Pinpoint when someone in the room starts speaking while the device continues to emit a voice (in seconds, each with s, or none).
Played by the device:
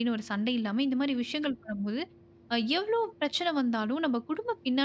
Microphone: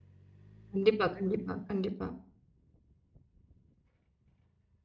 0.7 s